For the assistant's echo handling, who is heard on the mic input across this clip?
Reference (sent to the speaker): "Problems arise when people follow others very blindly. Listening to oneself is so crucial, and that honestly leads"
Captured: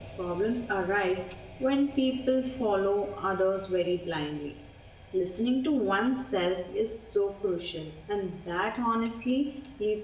echo only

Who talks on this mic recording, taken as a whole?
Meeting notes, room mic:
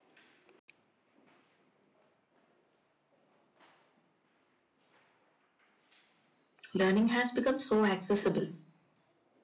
user only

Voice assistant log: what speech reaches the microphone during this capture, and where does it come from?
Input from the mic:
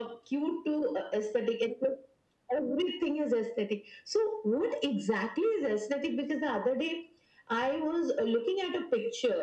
echo only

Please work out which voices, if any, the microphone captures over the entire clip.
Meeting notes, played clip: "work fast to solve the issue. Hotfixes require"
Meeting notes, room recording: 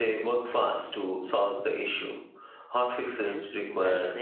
both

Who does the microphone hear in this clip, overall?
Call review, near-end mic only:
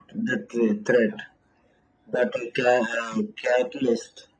echo only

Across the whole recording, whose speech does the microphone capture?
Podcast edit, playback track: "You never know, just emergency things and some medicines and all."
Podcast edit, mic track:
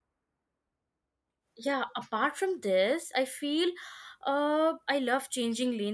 user only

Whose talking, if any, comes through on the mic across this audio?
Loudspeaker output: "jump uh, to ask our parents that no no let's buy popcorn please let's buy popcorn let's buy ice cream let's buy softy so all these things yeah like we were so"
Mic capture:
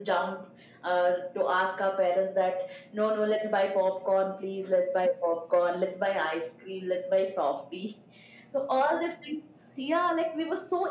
echo only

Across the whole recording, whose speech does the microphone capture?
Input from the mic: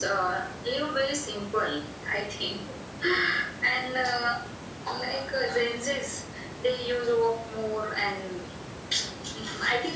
echo only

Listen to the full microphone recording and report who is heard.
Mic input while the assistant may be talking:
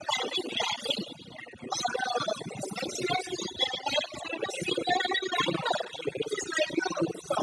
echo only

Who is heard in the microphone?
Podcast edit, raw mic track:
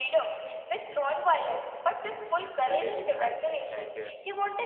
both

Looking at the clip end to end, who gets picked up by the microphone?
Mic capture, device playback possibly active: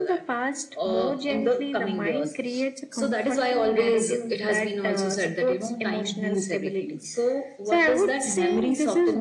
echo only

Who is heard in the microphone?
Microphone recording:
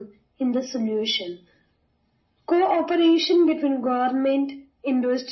echo only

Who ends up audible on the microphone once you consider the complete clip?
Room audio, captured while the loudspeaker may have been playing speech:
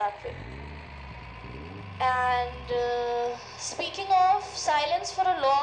echo only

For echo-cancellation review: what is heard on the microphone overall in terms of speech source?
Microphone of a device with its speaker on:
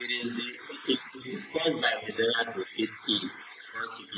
echo only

